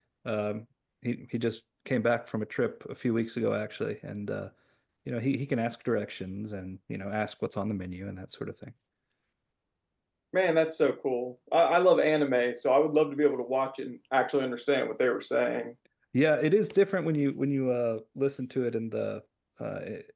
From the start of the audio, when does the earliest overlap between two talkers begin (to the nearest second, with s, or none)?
none